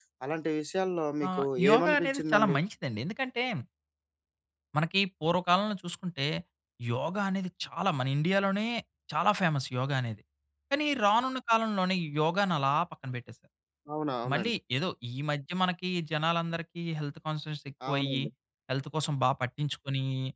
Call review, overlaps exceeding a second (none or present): present